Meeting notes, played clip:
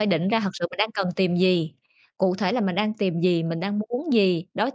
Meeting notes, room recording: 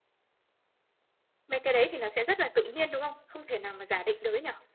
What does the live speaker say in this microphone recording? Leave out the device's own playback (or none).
mấy cái đấy thì nó sẽ rất là tự nhiên, đúng không? Không thể nào mà giả định được ấy nhỉ?